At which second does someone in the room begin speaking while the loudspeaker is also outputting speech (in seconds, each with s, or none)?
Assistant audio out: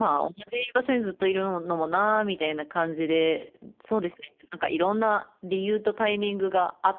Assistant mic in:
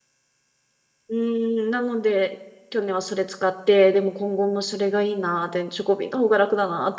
1.1 s